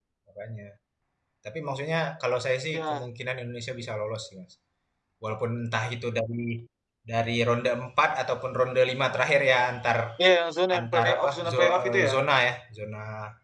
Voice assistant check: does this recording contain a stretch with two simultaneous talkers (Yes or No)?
Yes